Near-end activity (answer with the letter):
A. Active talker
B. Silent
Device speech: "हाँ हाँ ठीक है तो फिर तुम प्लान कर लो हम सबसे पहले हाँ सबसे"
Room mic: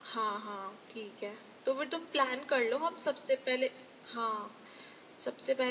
B